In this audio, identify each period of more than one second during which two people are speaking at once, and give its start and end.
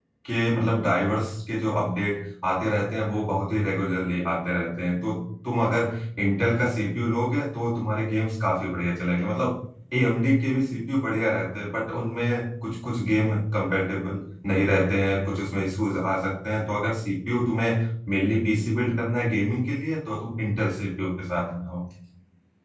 none

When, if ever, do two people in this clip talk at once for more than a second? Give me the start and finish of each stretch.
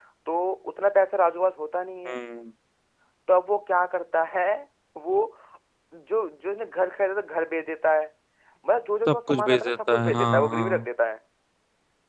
9.1-10.9

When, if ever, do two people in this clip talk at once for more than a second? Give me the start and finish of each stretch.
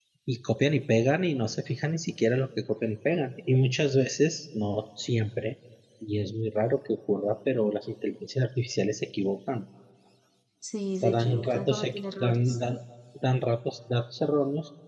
11.0-12.6

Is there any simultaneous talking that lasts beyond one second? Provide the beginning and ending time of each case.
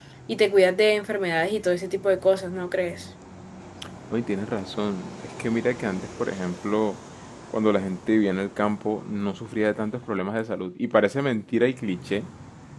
none

